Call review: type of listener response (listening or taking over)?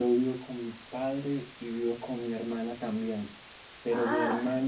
listening